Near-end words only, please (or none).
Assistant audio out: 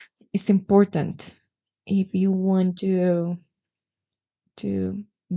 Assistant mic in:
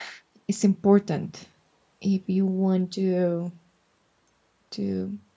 none